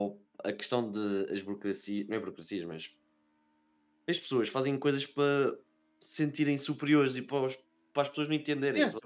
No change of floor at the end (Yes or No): No